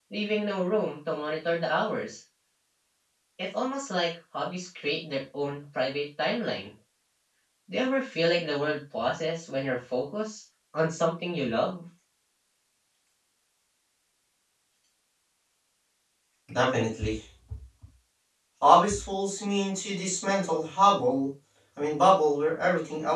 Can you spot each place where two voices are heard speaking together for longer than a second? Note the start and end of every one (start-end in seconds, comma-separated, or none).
none